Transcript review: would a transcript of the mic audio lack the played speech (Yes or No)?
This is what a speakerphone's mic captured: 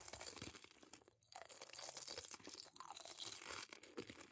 Yes